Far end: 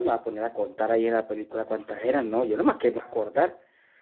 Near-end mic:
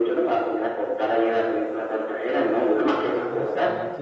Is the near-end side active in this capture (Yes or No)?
Yes